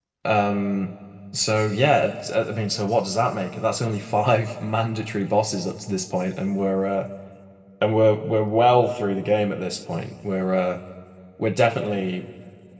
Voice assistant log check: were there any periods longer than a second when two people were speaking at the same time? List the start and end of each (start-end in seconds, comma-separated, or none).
none